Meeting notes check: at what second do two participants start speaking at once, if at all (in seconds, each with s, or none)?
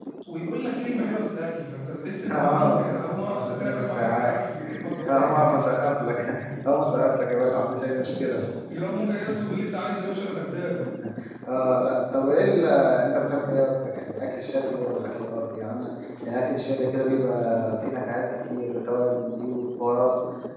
2.2 s